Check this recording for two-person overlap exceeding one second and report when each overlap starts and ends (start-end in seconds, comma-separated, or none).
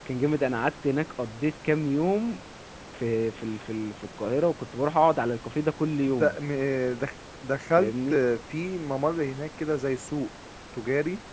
none